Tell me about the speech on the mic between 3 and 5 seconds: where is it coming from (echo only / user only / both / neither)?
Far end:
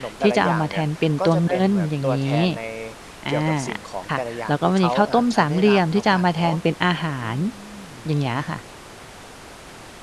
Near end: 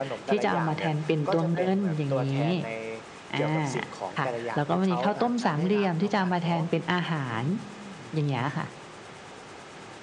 echo only